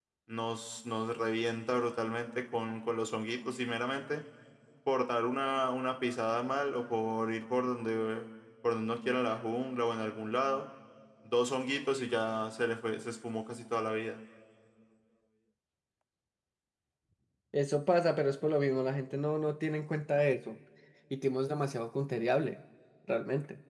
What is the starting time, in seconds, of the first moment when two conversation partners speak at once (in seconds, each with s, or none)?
none